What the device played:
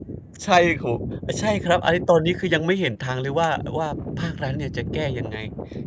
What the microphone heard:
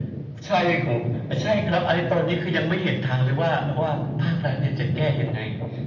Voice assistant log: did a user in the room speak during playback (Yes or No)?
No